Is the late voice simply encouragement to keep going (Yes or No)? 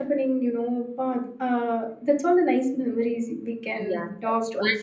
No